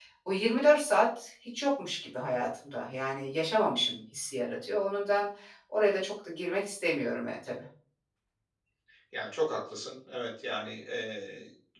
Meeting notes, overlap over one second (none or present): none